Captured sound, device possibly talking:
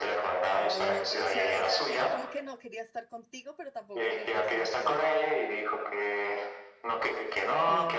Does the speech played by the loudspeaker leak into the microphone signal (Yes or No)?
Yes